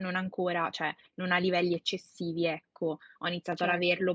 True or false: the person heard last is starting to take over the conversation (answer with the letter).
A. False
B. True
A